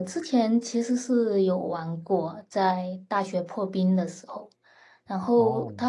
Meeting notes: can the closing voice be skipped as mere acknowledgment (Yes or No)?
Yes